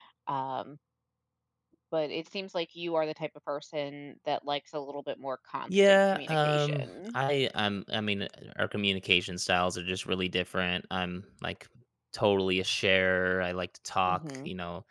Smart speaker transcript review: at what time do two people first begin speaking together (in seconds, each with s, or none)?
5.7 s